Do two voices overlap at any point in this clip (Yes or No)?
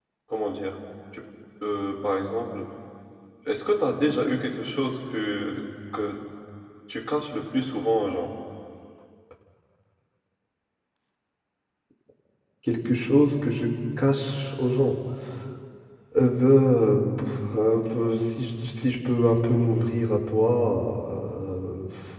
No